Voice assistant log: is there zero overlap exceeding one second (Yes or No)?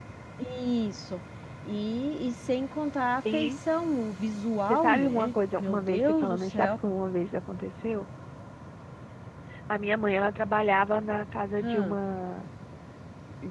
No